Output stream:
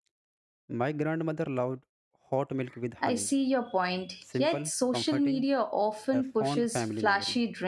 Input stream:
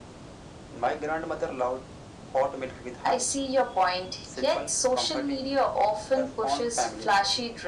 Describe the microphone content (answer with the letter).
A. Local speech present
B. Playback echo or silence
B